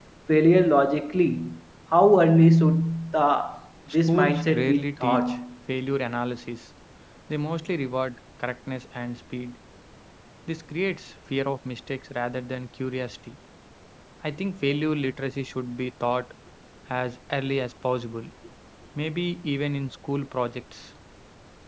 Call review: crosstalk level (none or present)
present